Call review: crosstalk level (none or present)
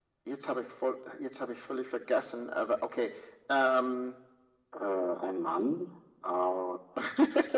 none